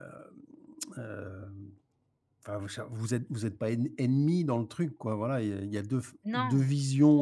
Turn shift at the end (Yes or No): No